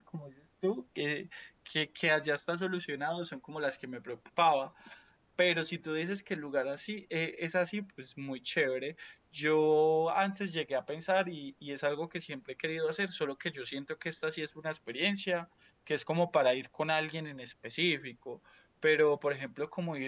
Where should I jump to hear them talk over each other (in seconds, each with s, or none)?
none